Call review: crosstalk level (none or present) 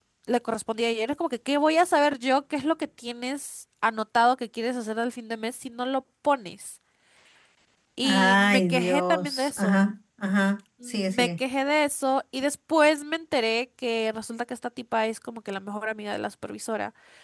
present